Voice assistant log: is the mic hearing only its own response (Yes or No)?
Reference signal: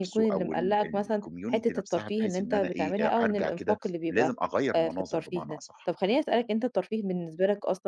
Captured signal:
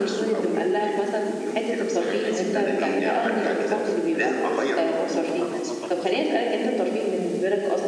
No